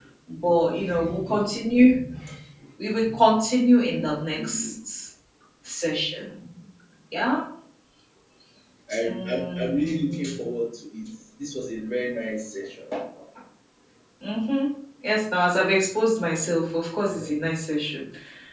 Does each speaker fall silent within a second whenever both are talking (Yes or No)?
No